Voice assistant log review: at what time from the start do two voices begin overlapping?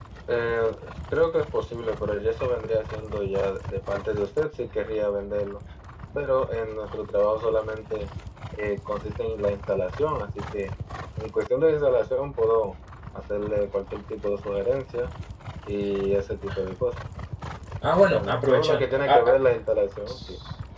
18.1 s

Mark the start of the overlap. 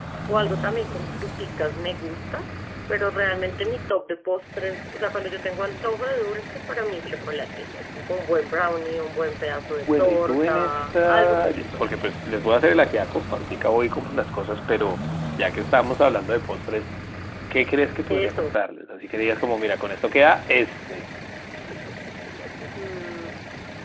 9.8 s

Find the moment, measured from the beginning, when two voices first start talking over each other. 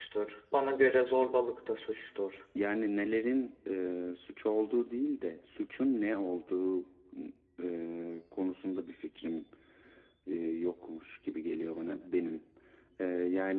none

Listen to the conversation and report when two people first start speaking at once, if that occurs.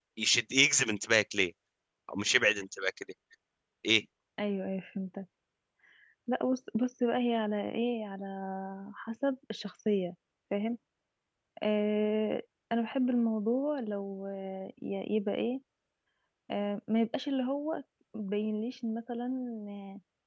none

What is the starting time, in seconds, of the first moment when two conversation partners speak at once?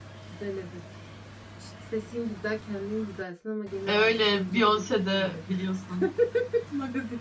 3.9 s

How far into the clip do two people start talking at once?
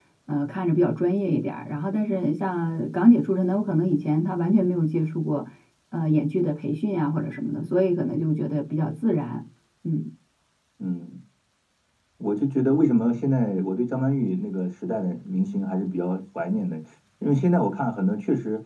none

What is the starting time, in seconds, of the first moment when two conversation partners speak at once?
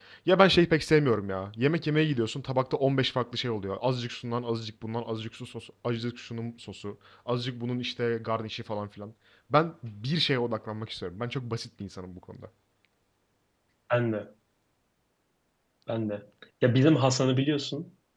none

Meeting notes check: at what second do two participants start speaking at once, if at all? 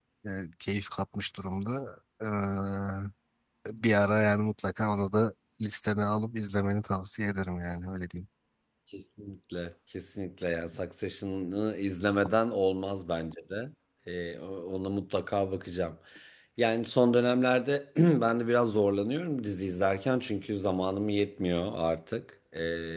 none

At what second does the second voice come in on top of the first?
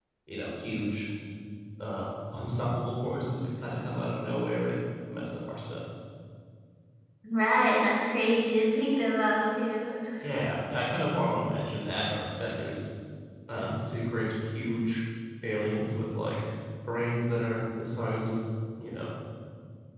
none

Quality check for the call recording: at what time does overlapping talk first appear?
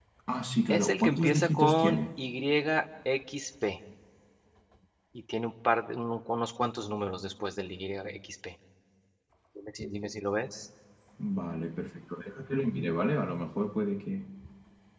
0.7 s

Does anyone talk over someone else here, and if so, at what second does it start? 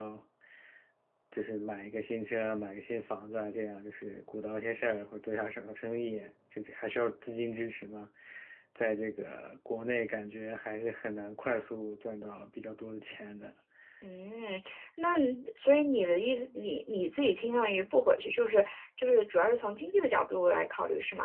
none

